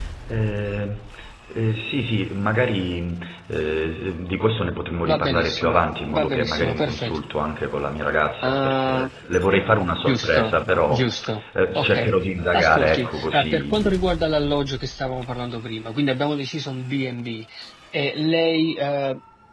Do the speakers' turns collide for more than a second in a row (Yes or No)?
Yes